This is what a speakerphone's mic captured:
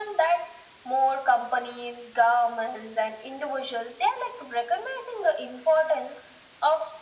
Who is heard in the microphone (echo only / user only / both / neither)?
echo only